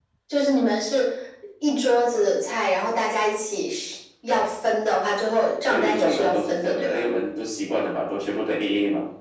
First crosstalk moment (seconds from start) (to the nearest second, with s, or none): 6 s